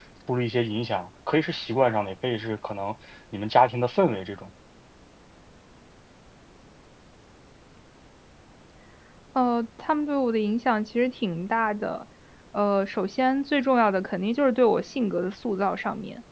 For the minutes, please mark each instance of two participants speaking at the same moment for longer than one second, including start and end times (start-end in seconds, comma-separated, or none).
none